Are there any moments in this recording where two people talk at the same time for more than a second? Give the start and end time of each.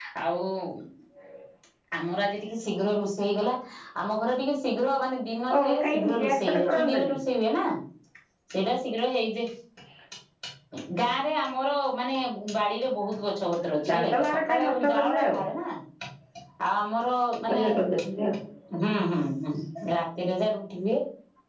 5.6-7.1, 13.9-15.3

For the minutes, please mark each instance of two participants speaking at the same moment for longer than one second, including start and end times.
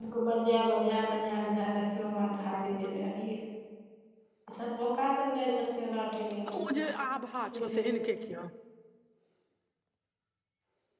6.6-8.2

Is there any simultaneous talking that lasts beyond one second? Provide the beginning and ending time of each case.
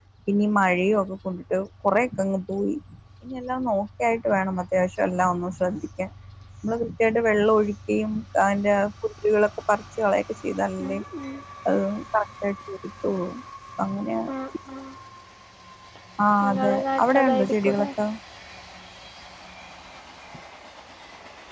16.5-17.9

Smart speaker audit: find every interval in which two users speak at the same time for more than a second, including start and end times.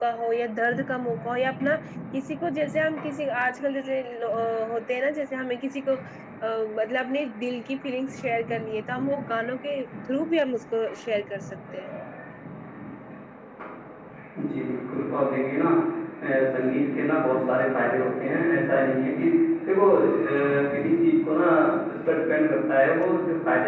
none

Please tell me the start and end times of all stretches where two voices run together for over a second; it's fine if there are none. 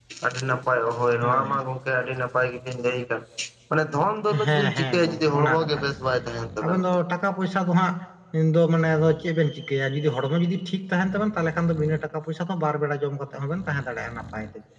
4.4-5.9

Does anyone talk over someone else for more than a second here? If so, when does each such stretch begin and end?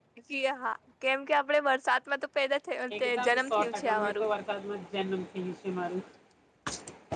3.0-4.2

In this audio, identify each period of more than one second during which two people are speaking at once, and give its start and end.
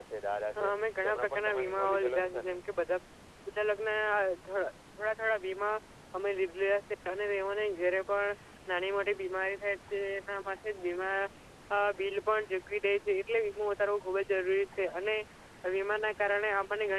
1.0-2.5

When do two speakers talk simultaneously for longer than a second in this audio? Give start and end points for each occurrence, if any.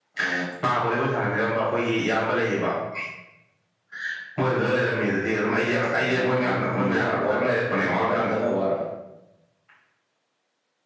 5.9-8.3

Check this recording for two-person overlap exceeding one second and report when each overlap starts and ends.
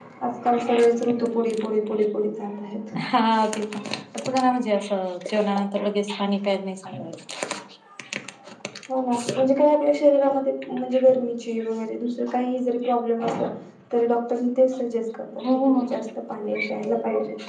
none

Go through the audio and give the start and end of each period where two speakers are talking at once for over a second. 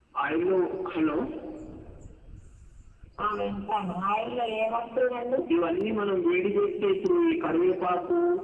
none

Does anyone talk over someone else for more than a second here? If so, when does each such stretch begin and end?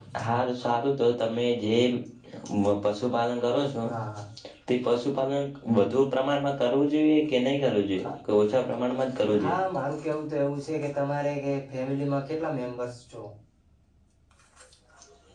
none

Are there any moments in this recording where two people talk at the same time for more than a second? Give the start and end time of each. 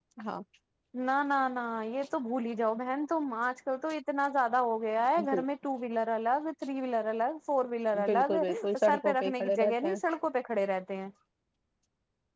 8.1-10.0

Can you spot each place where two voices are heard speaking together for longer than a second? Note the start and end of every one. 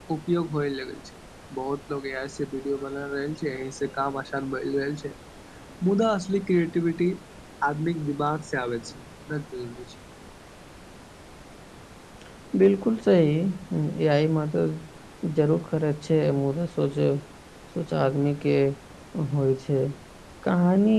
none

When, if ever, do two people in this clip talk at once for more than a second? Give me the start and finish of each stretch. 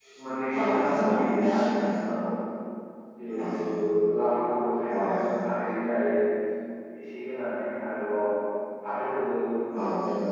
0.6-1.9

